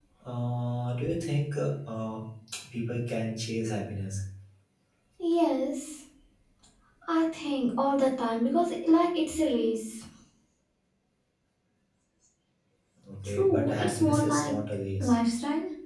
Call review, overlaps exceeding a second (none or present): present